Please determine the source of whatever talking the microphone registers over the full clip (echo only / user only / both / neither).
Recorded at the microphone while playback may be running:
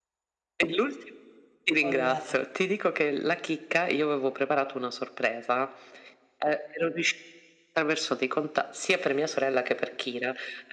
both